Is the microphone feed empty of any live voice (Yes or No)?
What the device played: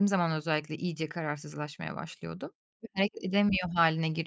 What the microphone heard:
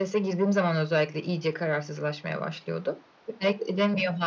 Yes